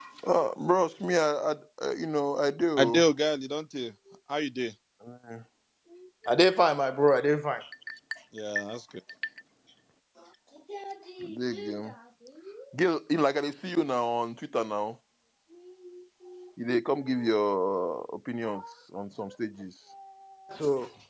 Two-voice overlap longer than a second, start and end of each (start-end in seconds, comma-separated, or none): none